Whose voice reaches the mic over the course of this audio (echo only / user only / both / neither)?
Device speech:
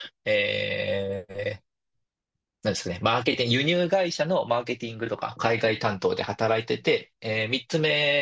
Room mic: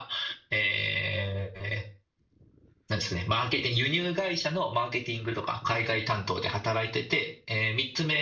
echo only